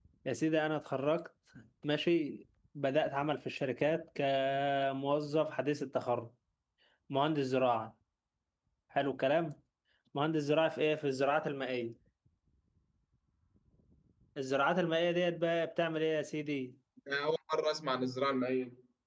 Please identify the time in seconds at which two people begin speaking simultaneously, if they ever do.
none

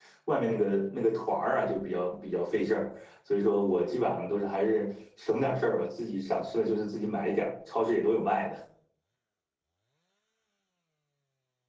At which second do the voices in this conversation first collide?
none

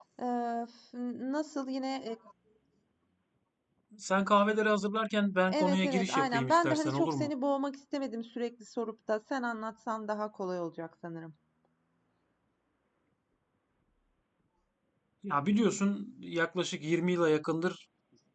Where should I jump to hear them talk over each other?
5.5 s

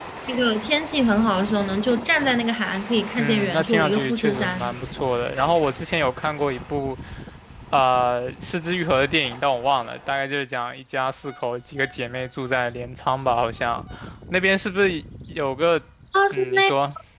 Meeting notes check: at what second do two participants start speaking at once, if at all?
3.2 s

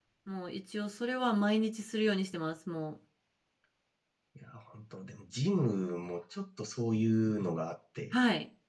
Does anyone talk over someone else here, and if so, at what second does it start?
none

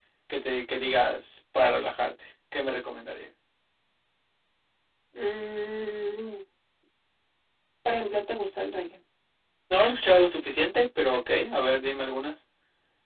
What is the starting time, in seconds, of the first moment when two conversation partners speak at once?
none

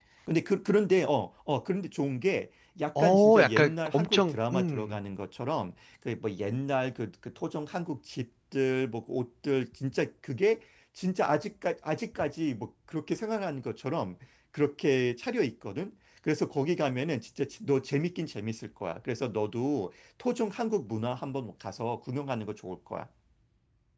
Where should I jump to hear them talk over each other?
3.0 s

